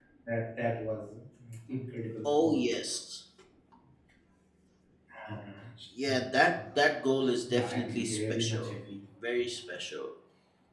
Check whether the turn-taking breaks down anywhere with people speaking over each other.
Yes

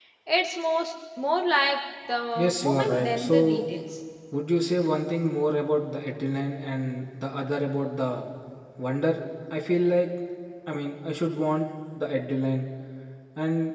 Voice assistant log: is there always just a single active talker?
No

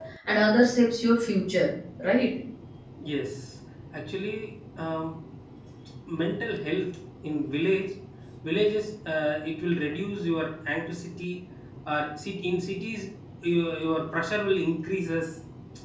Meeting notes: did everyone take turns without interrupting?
Yes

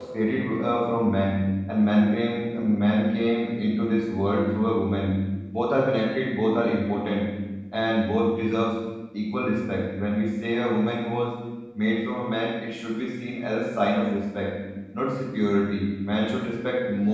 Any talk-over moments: No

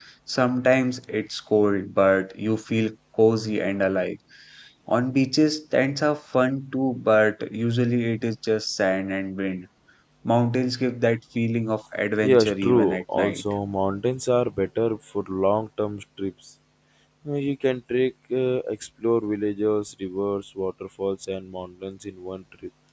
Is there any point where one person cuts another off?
Yes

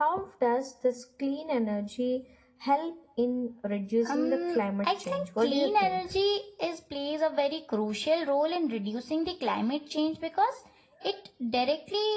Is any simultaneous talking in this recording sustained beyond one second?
Yes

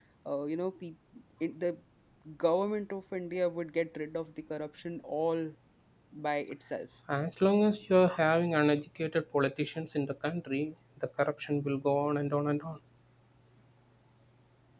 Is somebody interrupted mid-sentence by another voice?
No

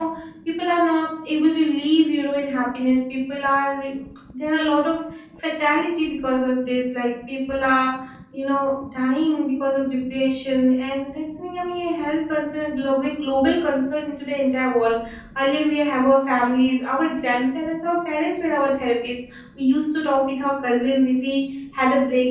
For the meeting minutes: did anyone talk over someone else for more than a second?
No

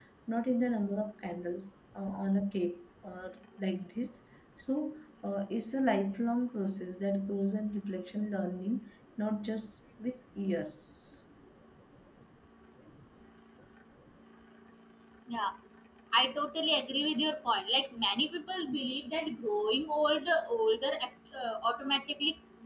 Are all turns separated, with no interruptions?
Yes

